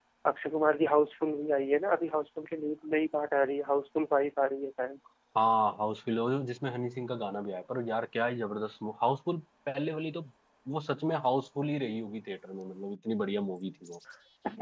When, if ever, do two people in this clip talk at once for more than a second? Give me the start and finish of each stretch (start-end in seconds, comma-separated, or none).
none